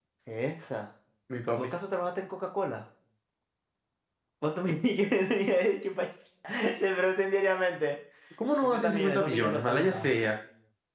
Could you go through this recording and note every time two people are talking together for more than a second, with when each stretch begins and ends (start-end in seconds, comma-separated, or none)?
8.6-10.2